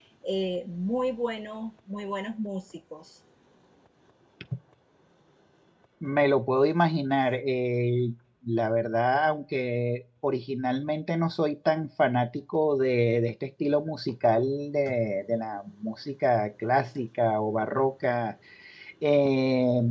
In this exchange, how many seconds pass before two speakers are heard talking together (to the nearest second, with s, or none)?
none